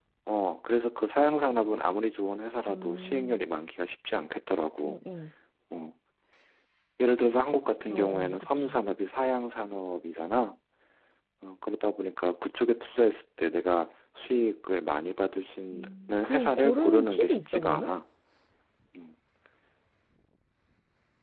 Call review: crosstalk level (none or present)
present